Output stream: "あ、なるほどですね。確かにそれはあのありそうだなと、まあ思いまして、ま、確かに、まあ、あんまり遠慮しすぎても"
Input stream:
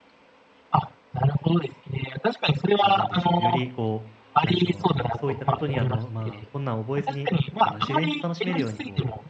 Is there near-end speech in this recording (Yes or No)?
Yes